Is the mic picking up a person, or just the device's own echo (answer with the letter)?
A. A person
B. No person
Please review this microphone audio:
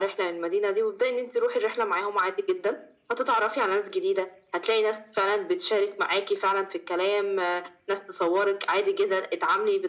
B